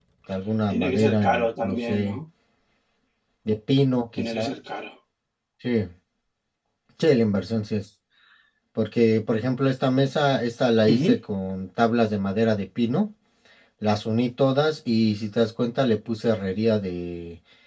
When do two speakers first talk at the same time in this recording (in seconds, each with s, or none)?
0.7 s